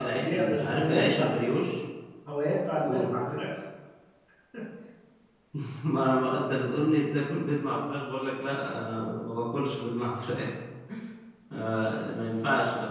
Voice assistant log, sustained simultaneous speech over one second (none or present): present